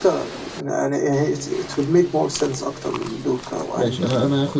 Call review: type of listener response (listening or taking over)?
taking over